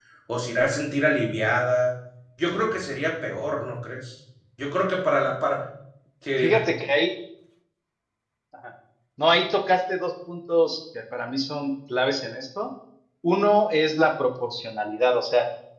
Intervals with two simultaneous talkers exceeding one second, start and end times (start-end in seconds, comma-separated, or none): none